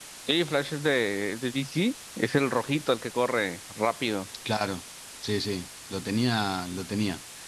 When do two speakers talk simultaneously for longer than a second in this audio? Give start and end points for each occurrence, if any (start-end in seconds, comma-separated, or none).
none